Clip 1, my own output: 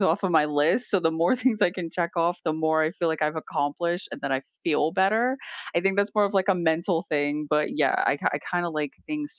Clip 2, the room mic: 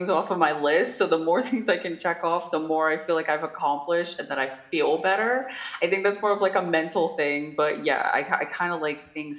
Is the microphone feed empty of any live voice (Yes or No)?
Yes